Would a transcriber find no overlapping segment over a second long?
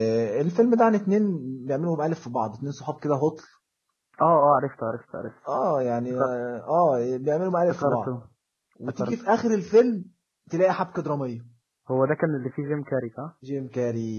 Yes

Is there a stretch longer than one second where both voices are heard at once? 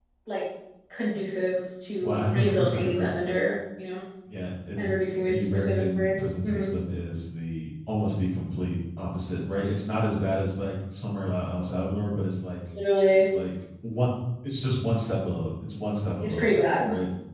Yes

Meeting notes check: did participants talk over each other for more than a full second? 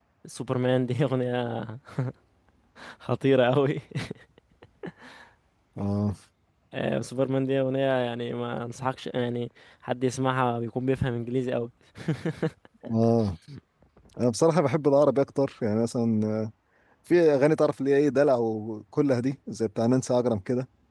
No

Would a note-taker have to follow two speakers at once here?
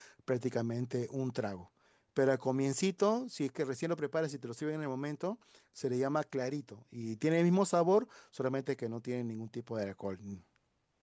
No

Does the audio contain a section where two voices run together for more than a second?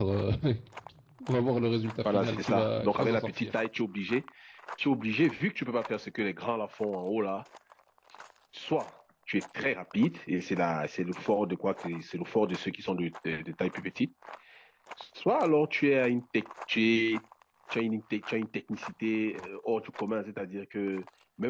Yes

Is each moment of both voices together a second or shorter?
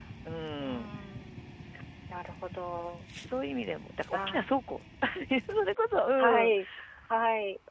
Yes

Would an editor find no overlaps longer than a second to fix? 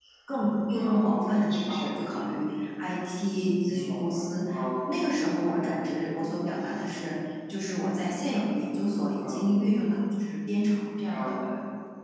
No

